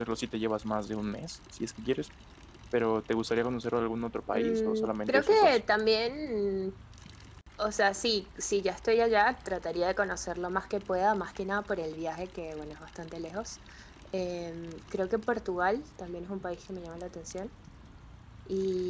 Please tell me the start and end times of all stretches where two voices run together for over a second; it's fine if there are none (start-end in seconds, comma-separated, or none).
4.3-5.6